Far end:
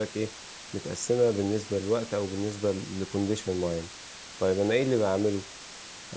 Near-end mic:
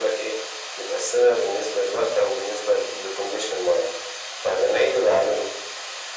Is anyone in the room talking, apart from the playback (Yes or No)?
No